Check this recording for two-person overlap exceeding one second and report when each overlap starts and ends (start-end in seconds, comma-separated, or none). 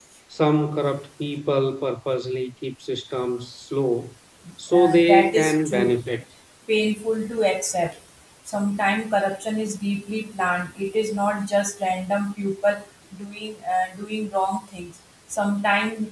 4.7-6.0